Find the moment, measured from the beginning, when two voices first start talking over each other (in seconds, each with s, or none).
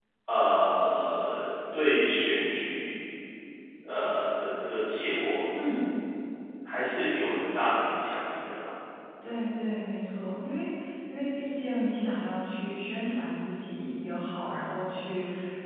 none